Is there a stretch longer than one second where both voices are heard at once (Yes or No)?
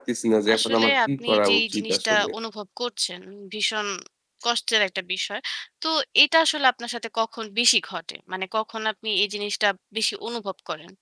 Yes